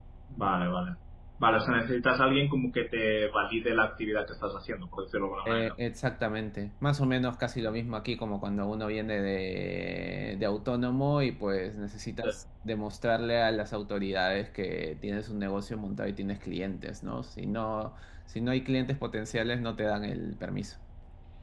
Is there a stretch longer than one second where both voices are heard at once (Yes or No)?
No